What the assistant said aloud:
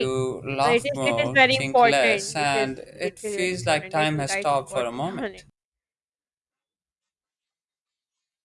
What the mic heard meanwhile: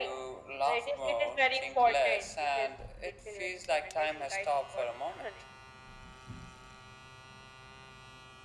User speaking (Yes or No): No